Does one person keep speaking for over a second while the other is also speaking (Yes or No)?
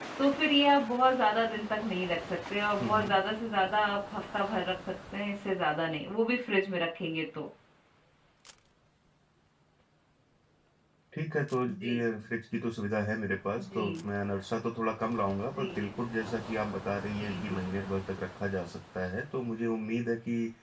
No